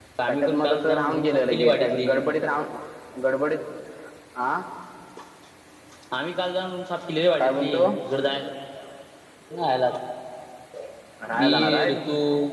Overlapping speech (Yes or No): Yes